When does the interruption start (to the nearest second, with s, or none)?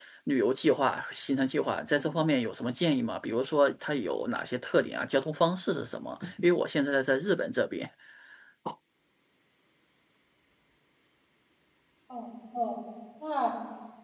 none